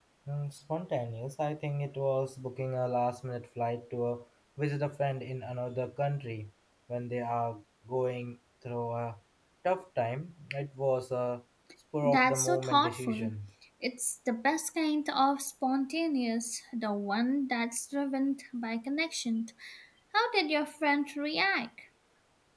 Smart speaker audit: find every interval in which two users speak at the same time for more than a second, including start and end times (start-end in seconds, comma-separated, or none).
12.0-13.3